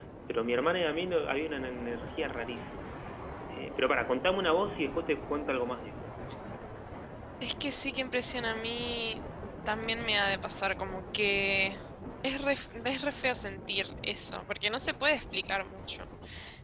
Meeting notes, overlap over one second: none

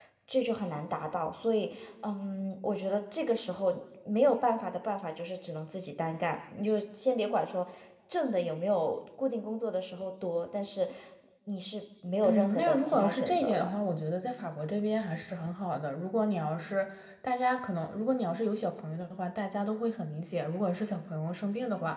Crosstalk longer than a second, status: present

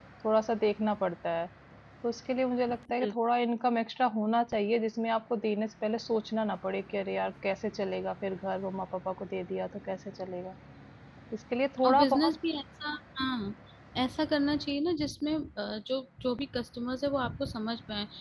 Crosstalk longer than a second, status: none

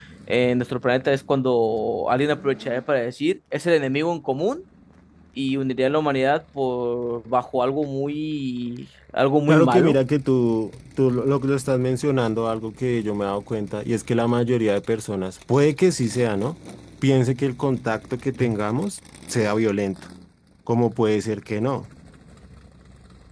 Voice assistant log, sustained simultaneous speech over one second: none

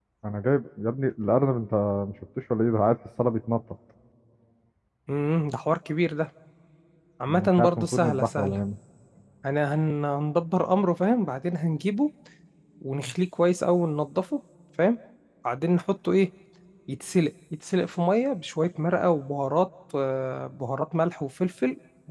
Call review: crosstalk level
present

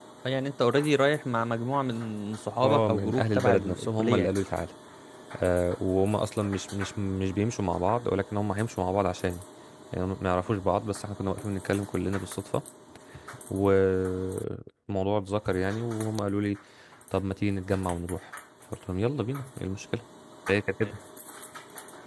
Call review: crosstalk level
present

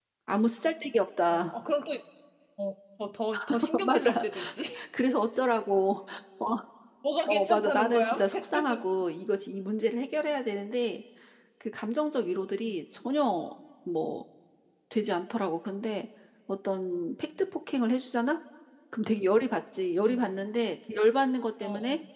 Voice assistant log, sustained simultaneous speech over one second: present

